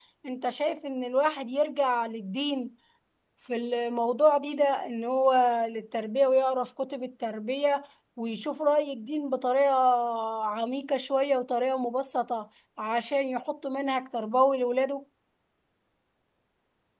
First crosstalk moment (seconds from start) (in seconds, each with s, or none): none